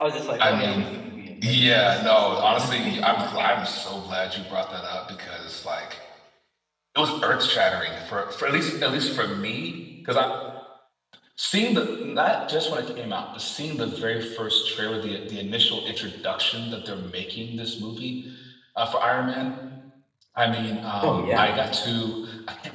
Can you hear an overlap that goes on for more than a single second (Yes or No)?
Yes